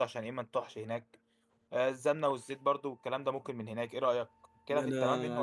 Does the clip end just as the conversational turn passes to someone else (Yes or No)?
Yes